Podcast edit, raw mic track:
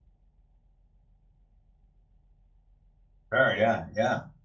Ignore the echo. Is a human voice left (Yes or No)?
Yes